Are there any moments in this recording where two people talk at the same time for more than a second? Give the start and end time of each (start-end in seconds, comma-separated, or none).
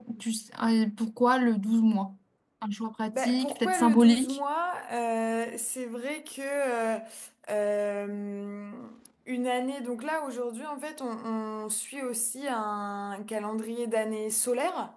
3.1-4.4